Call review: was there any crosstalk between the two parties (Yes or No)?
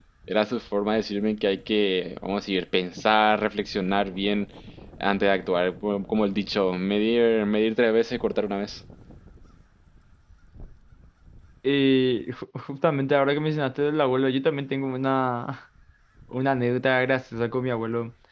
No